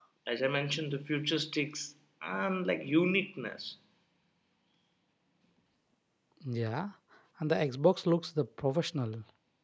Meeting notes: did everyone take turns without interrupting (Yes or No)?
Yes